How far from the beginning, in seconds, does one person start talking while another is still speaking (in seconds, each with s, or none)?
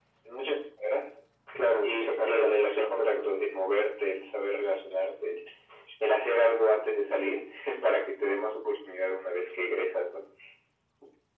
1.8 s